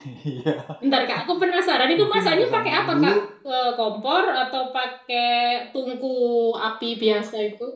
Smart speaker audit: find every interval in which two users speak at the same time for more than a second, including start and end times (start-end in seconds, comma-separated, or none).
2.0-3.2